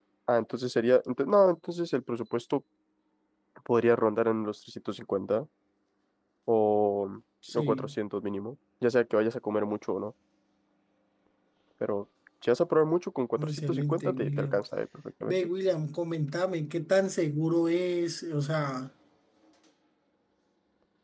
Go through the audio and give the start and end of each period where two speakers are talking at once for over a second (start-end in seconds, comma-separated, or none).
13.4-14.6